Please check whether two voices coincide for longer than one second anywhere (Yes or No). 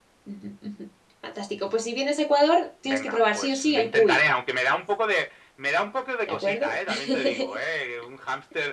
Yes